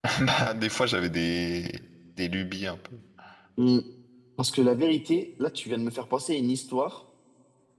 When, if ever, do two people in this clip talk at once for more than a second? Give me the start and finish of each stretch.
none

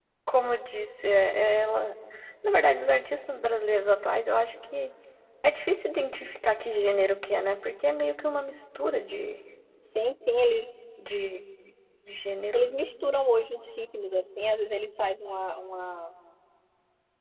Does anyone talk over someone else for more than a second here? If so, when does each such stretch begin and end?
none

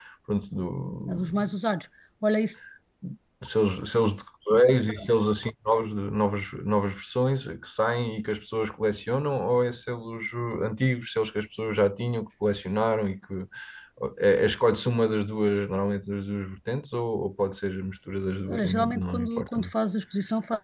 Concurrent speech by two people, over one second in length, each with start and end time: 18.5-19.7

